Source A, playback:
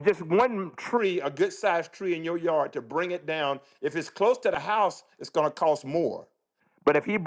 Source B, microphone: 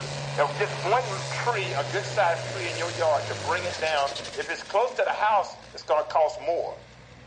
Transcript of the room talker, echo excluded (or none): none